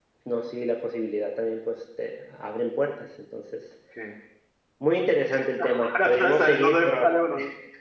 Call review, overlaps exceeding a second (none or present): present